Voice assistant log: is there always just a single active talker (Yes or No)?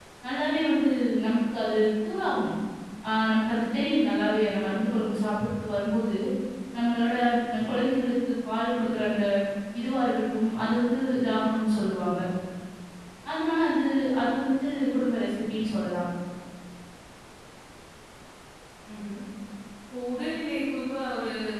Yes